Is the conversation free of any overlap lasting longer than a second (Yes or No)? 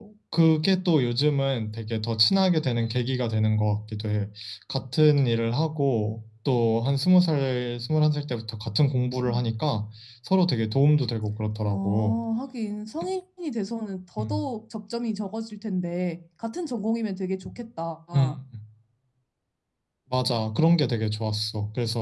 Yes